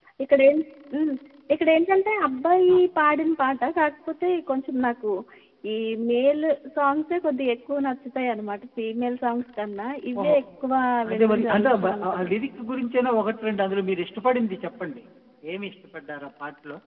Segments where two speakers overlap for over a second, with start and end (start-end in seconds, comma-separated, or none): 11.1-12.3